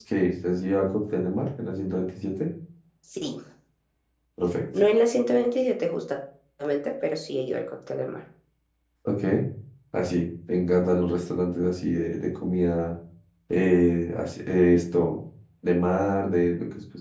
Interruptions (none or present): none